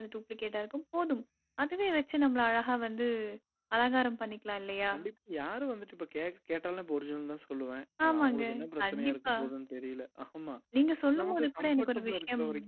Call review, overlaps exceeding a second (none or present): present